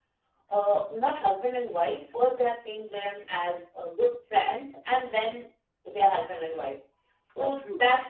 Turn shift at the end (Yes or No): No